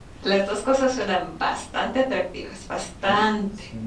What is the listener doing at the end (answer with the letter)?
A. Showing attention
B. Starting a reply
B